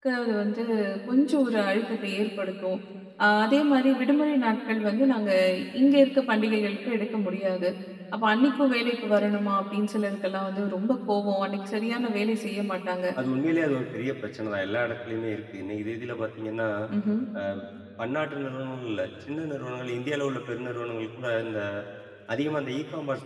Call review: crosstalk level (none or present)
none